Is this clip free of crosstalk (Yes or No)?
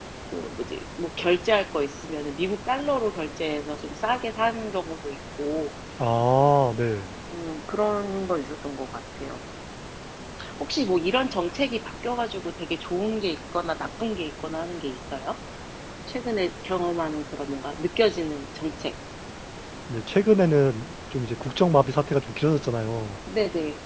Yes